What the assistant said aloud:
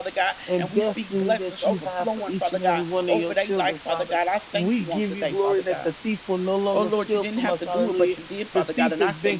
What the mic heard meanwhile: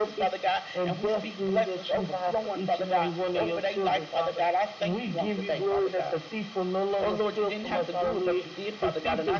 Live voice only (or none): none